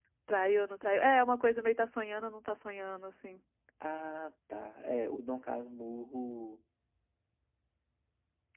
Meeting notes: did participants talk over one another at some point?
No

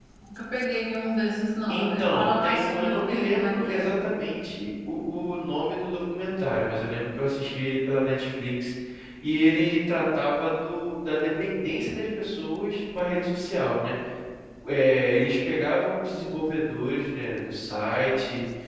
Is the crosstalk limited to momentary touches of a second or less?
No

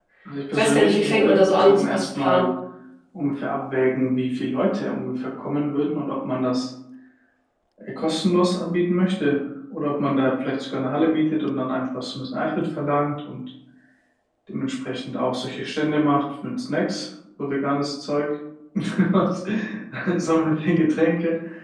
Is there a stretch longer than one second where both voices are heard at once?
Yes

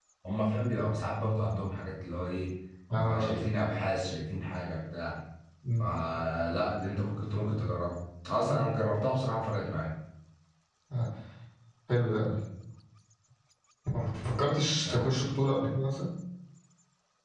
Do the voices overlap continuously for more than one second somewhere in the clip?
No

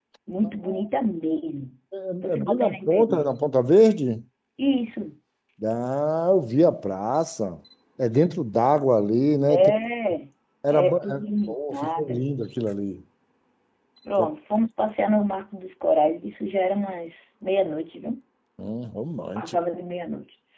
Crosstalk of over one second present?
Yes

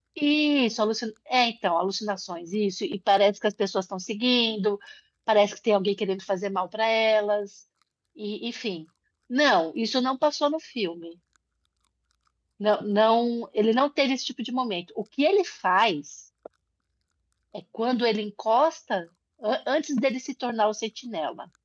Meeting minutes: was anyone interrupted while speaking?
No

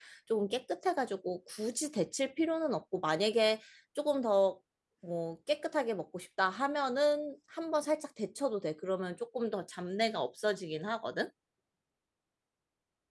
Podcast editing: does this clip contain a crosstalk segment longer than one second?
No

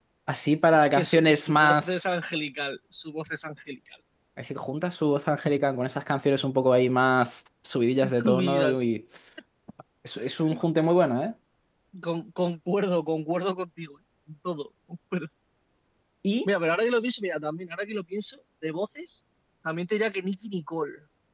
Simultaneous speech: Yes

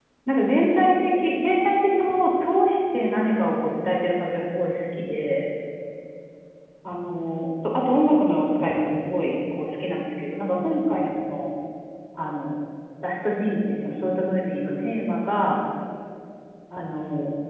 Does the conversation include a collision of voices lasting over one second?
No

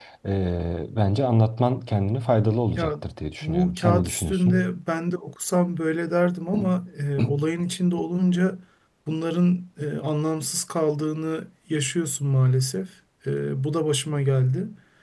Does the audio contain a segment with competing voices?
Yes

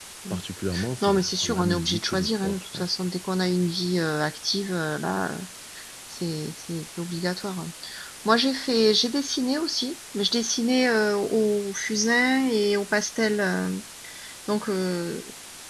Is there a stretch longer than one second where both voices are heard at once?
Yes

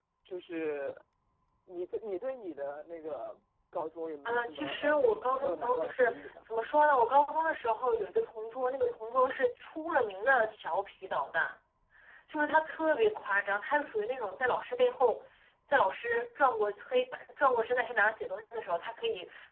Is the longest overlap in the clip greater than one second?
Yes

